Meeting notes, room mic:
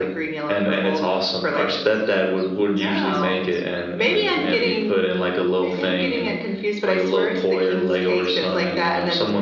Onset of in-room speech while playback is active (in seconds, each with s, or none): none